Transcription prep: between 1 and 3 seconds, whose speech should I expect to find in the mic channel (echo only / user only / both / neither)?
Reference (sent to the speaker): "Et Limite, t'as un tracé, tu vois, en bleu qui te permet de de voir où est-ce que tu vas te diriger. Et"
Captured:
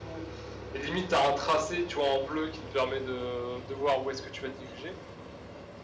echo only